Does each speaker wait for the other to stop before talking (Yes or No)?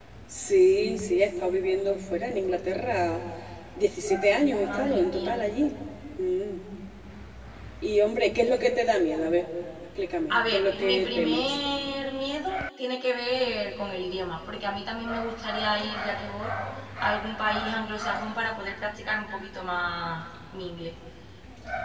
No